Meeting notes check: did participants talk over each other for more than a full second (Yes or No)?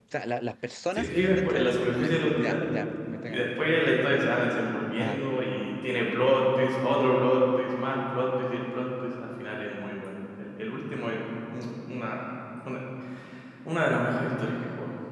Yes